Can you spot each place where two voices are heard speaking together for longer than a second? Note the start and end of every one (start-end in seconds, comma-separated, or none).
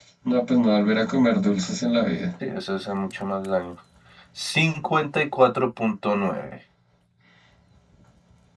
none